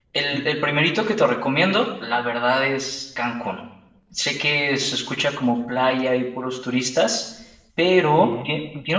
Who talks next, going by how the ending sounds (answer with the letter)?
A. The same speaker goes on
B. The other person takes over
A